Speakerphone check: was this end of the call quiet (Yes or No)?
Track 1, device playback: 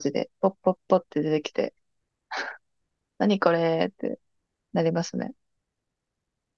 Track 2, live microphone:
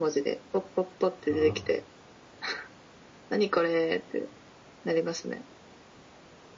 No